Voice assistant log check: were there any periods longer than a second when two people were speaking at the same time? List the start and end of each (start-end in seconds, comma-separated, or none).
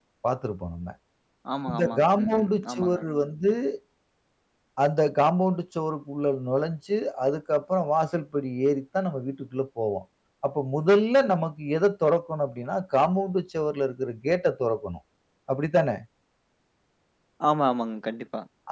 1.7-3.0